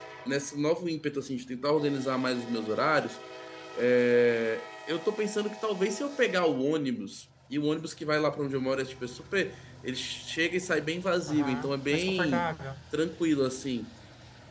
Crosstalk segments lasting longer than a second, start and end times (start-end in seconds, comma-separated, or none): 11.3-12.5